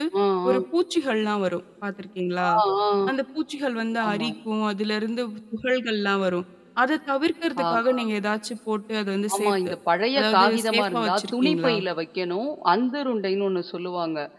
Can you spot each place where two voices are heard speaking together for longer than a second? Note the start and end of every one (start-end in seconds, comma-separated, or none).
10.2-11.7